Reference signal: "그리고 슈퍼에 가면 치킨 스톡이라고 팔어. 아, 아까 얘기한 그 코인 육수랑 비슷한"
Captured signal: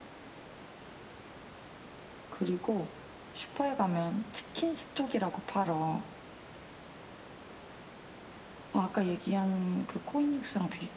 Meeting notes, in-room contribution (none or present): none